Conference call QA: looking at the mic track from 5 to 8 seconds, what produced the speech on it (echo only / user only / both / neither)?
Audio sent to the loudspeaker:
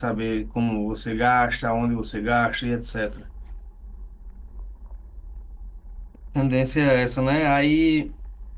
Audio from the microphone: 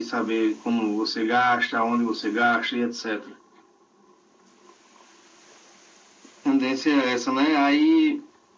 echo only